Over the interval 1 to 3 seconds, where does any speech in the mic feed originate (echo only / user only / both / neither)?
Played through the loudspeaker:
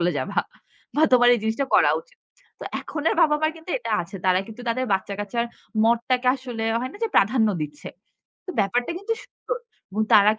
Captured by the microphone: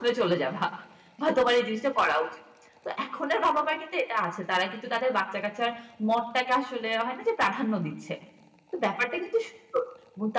echo only